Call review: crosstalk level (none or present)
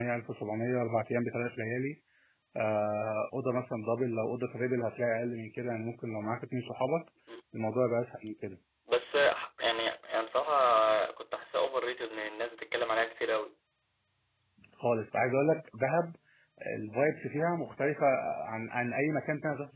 none